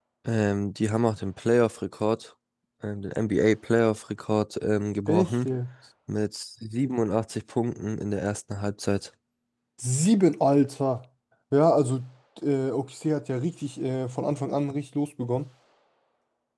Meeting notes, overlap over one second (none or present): none